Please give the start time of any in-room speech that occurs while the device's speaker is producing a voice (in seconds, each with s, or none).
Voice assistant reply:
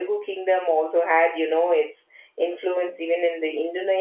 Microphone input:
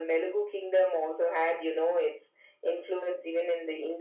none